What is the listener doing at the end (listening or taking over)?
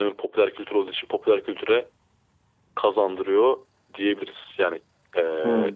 listening